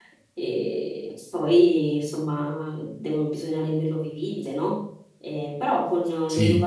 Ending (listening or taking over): listening